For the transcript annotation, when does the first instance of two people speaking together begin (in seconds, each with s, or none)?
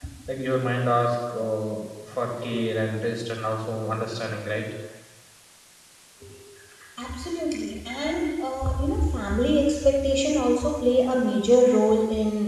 none